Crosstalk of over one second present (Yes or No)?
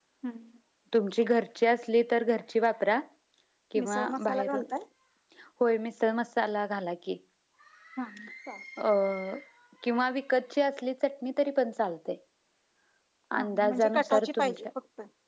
Yes